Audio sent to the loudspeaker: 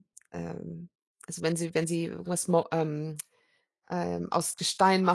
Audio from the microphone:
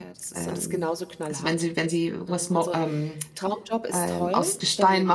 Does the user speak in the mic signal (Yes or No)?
Yes